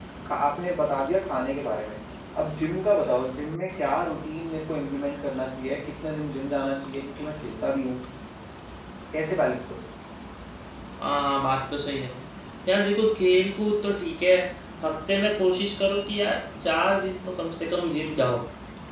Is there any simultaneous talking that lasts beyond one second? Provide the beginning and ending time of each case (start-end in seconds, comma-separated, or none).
none